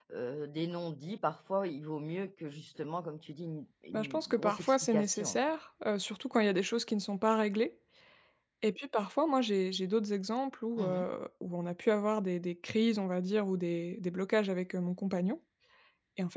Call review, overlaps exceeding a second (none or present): present